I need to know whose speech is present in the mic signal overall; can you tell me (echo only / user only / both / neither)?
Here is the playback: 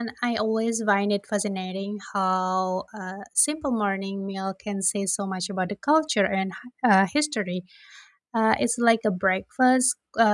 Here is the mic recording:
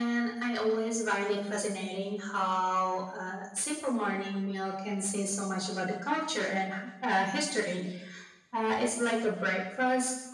echo only